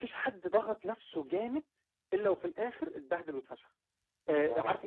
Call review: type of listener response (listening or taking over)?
listening